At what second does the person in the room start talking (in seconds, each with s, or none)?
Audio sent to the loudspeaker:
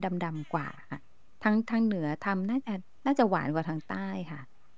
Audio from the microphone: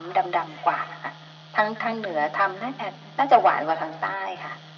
none